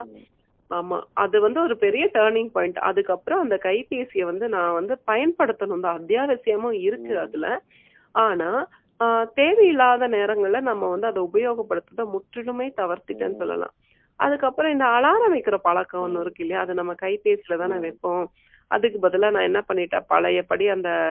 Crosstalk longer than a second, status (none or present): none